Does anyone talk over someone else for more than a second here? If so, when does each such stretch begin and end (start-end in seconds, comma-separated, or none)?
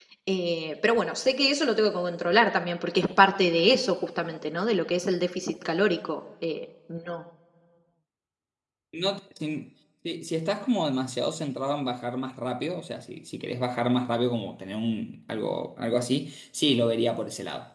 none